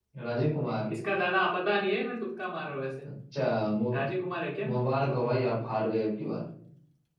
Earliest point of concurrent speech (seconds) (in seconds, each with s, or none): none